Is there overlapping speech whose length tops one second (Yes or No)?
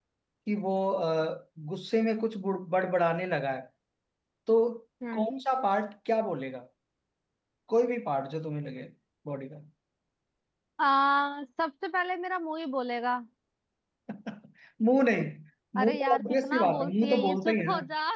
Yes